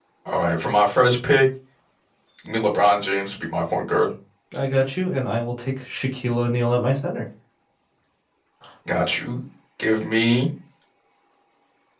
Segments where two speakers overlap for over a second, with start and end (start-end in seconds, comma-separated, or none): none